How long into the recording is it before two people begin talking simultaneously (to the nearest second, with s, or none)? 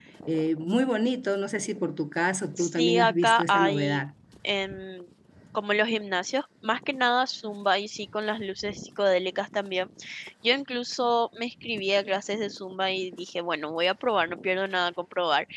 3 s